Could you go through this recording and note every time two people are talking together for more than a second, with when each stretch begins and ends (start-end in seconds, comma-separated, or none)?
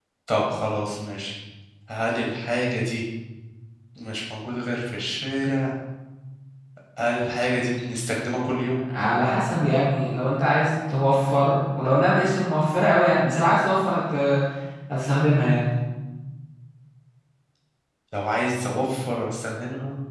none